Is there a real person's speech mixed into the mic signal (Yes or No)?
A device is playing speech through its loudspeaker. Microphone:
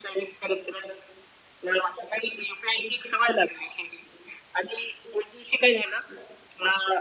No